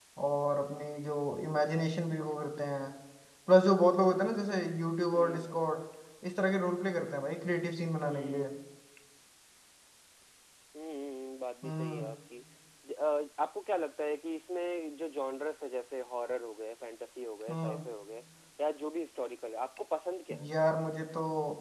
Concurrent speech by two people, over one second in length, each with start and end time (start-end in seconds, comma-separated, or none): none